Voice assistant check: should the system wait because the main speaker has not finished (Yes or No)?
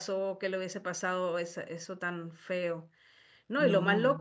Yes